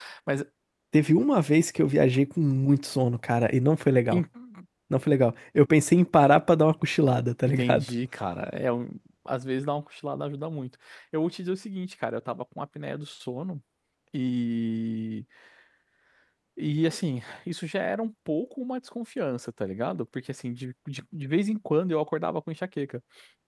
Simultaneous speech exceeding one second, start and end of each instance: none

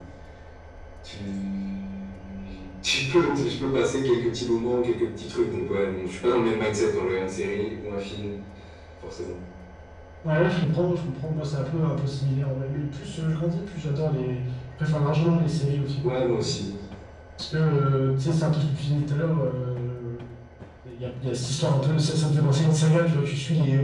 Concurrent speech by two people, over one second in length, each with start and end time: none

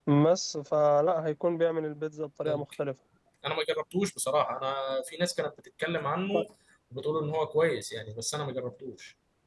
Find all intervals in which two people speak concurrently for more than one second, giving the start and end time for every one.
none

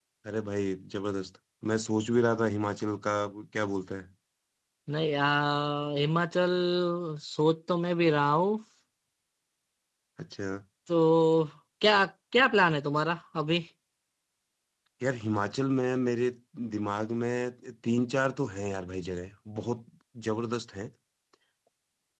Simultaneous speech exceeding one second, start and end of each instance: none

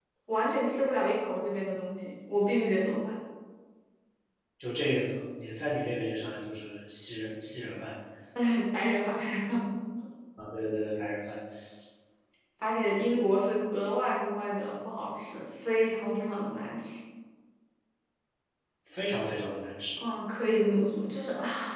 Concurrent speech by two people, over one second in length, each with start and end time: none

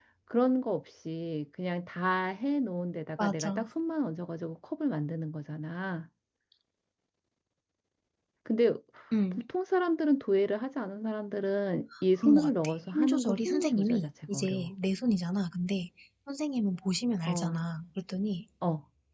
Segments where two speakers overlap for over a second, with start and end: 12.2-14.7

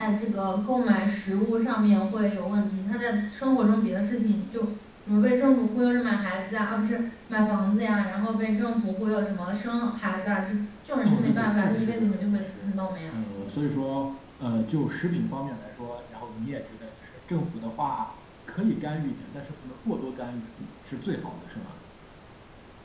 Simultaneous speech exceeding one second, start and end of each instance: 11.0-12.7

